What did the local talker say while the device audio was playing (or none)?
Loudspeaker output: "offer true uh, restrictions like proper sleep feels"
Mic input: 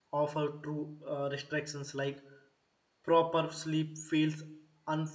none